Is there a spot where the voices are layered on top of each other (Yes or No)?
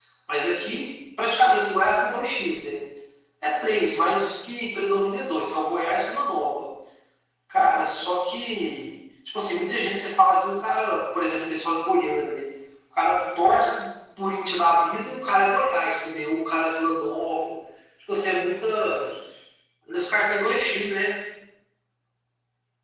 No